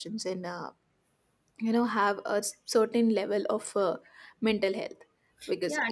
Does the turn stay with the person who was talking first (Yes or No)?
No